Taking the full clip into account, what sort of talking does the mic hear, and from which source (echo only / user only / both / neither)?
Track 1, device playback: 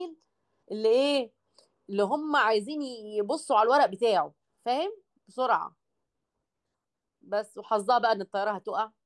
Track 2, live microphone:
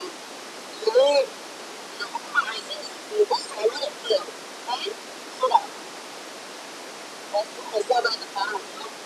echo only